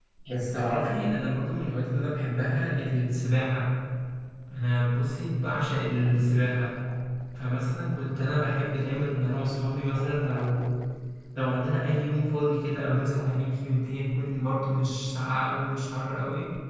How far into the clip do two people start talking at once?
none

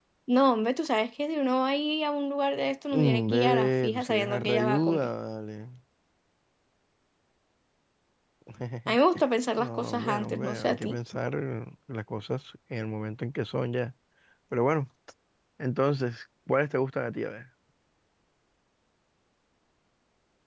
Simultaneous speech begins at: 2.9 s

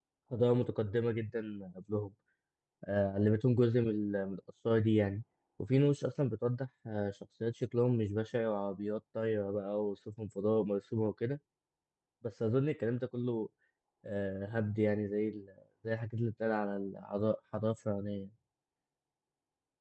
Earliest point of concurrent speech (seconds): none

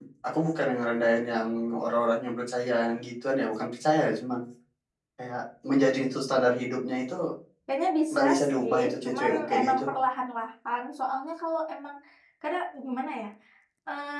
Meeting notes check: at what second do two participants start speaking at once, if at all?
8.1 s

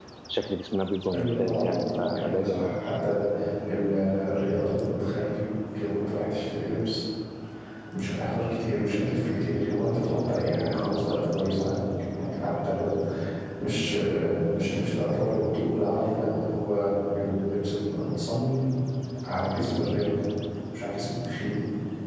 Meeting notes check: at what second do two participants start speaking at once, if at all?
1.1 s

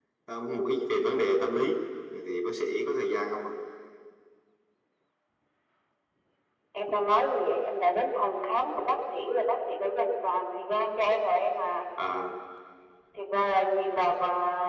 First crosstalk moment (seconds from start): none

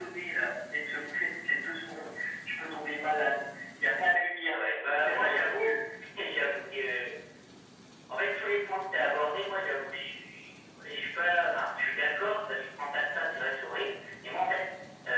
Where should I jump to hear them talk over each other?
4.5 s

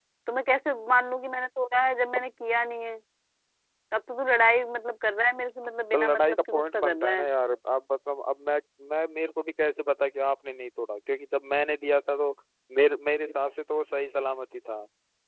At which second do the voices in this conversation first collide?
5.9 s

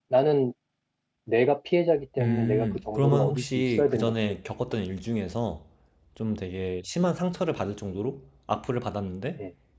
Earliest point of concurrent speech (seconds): 2.2 s

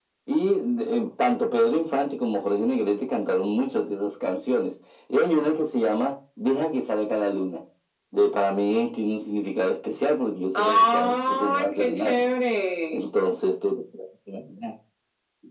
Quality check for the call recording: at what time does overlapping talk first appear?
10.6 s

